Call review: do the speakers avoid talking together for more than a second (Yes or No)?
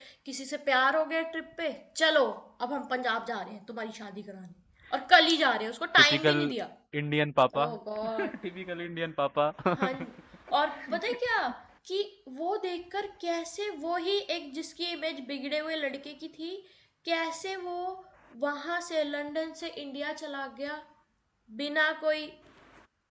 Yes